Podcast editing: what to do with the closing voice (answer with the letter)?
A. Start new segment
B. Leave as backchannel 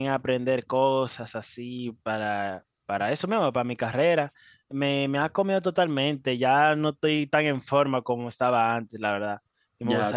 A